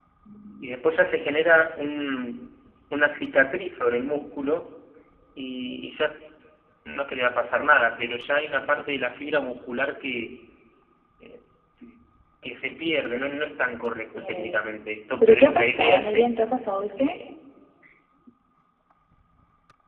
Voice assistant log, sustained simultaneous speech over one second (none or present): present